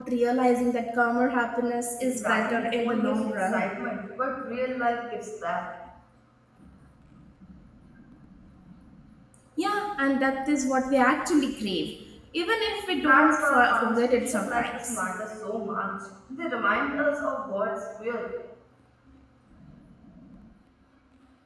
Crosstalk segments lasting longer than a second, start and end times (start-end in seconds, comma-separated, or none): 2.0-3.6, 13.0-15.0